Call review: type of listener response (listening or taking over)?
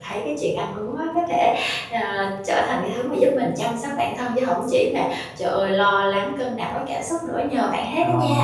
taking over